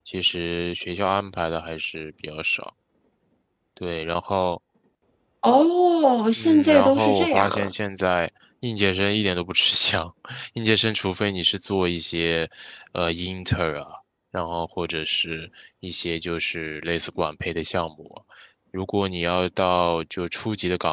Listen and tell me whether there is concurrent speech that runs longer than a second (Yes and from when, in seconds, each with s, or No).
Yes, from 6.4 s